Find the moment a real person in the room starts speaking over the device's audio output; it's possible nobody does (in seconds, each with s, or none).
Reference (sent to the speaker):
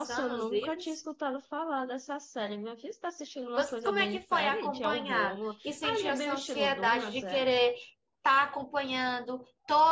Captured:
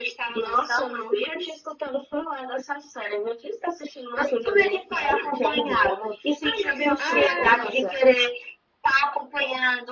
7.0 s